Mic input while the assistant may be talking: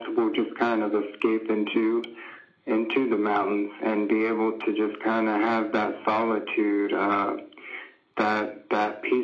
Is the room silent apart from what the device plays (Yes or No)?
Yes